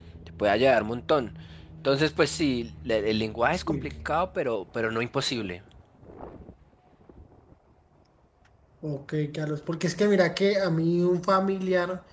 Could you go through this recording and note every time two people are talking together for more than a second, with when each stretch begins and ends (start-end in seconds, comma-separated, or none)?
none